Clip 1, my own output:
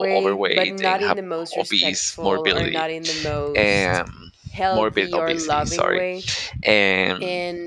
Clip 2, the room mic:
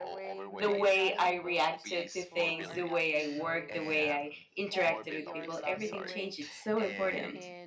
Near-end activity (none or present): present